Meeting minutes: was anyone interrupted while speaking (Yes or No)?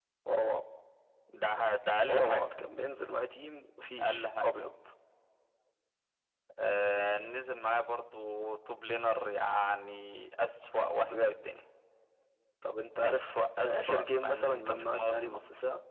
Yes